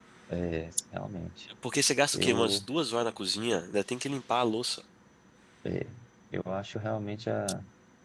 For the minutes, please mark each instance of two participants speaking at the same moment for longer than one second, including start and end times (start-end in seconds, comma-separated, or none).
none